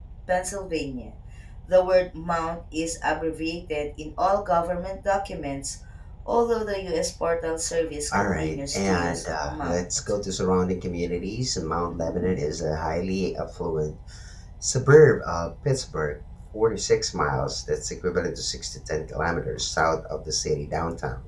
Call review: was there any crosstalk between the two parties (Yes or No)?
Yes